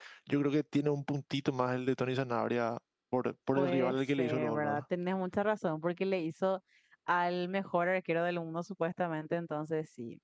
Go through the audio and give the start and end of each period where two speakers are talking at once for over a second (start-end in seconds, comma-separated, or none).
3.6-4.8